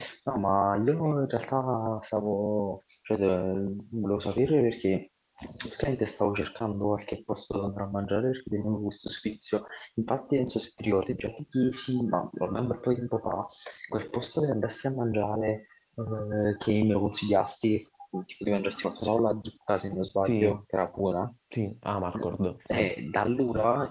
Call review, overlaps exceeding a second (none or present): none